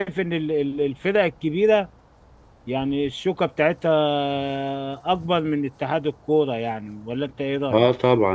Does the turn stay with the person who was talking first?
No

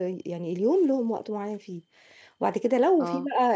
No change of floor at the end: Yes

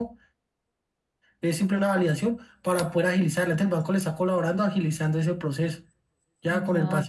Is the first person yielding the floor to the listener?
Yes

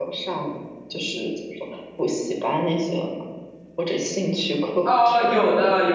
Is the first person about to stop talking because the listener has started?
Yes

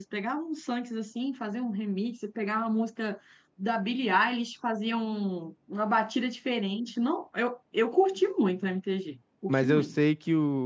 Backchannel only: No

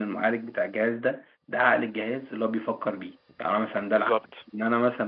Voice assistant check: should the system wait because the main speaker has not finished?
Yes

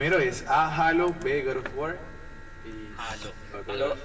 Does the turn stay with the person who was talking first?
No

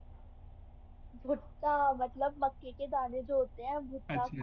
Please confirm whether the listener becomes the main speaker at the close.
Yes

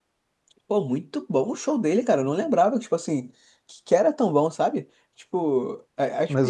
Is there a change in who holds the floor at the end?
Yes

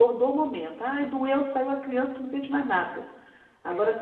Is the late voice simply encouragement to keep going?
Yes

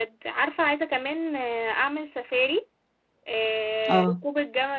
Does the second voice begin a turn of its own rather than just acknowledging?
No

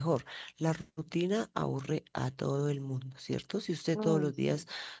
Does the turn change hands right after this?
No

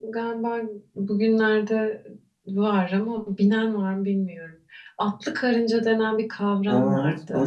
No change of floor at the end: No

